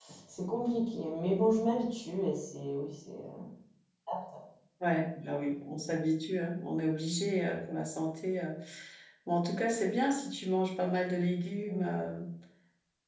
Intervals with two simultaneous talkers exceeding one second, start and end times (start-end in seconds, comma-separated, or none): none